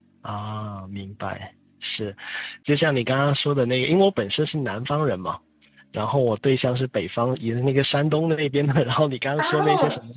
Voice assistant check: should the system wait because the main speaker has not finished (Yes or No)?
Yes